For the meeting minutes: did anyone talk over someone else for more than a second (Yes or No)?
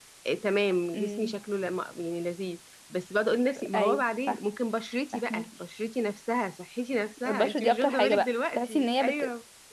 Yes